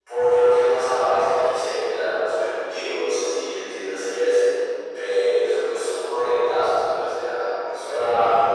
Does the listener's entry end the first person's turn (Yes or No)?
Yes